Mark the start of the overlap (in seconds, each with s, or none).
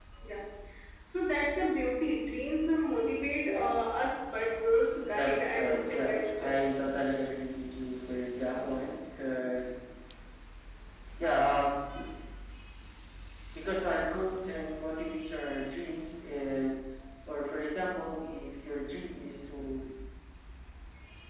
5.1 s